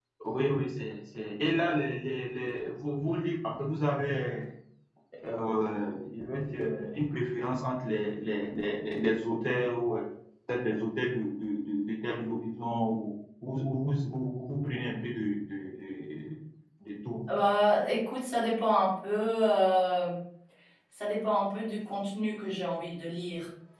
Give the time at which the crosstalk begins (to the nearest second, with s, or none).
none